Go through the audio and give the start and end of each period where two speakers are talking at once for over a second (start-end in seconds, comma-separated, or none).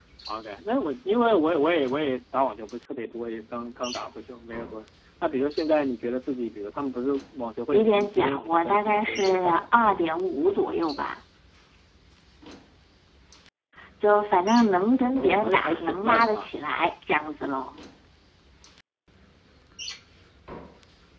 7.7-9.7, 15.1-16.5